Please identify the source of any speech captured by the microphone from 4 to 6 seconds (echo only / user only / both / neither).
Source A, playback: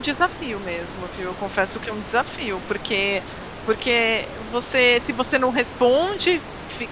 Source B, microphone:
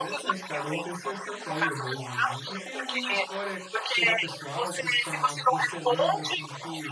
both